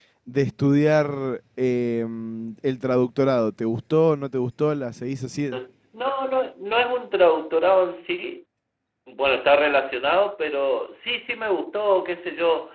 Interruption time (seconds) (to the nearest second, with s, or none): none